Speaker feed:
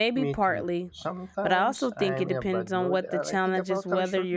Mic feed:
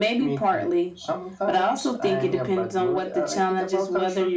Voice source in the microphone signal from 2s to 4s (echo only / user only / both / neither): echo only